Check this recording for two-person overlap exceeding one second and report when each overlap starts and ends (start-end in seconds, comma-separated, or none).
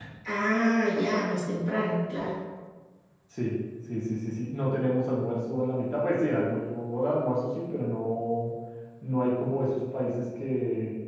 none